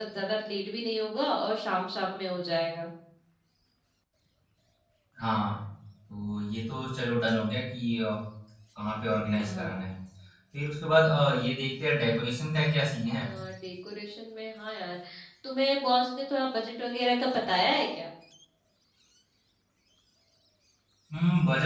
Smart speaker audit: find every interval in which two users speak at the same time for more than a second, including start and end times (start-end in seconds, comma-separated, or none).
none